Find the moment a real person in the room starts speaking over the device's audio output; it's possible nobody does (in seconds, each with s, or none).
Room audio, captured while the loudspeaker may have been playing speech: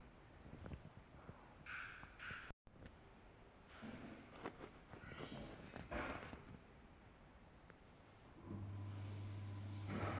none